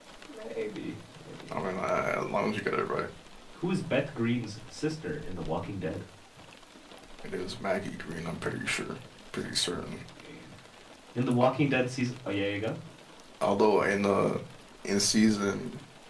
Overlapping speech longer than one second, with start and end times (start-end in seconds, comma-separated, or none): none